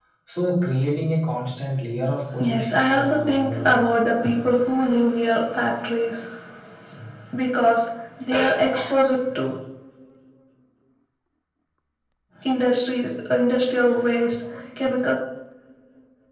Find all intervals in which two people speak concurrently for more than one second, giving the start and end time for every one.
2.4-3.8

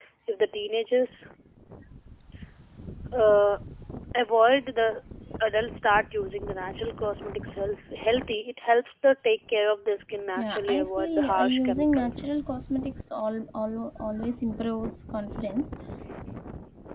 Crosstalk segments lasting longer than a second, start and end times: 10.4-12.2

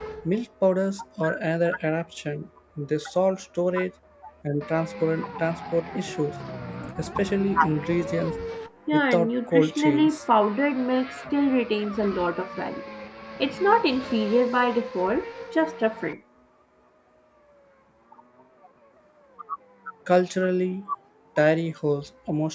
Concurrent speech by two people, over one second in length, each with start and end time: 8.9-10.2

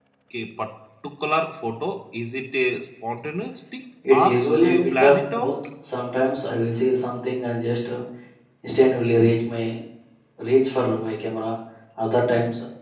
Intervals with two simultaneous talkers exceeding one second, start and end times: 4.1-5.5

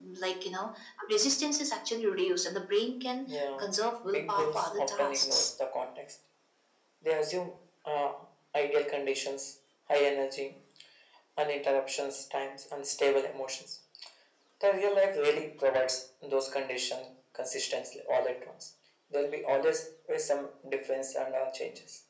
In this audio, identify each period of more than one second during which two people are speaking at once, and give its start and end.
4.1-5.5

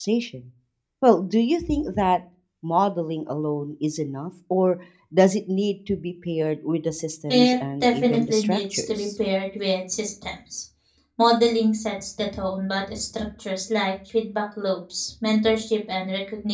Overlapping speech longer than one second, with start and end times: 7.3-9.1

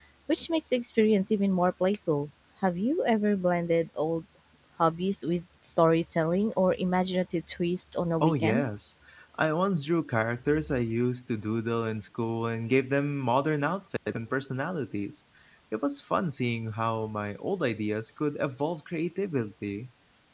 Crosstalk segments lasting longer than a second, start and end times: none

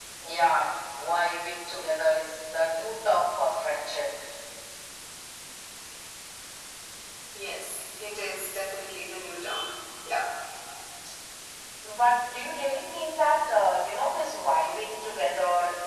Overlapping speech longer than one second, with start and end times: none

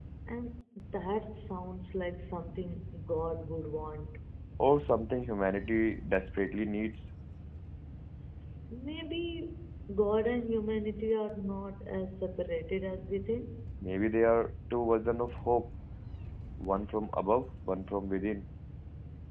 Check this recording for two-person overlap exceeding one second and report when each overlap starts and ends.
none

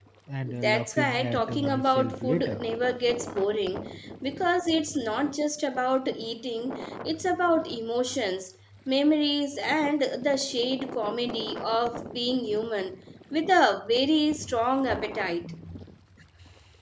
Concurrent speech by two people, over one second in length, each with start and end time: 0.6-2.6

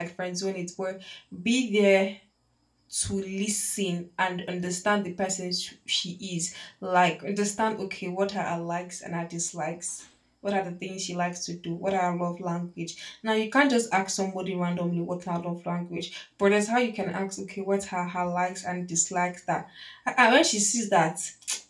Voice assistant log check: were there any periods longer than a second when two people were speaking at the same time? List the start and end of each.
none

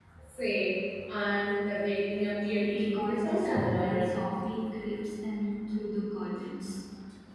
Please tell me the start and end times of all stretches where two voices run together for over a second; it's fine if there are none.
2.7-4.3

